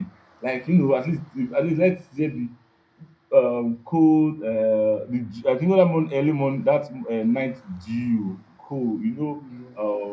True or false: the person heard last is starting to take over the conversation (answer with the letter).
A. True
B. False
B